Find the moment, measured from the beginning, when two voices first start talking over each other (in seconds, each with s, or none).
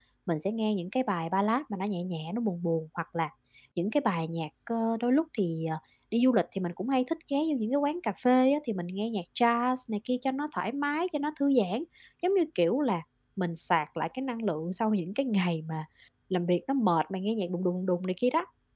none